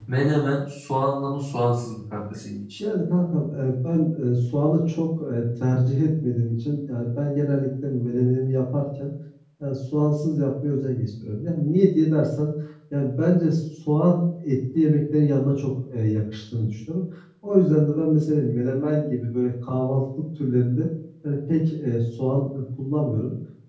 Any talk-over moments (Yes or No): No